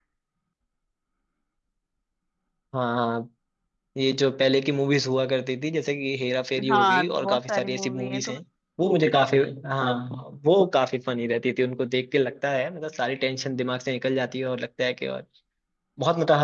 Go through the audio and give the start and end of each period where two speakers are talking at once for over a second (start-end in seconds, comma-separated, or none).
6.7-8.3